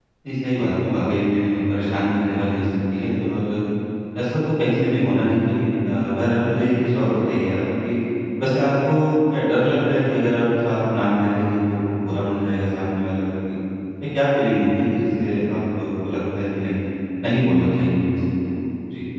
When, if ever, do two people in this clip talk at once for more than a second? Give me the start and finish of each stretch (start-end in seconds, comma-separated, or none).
none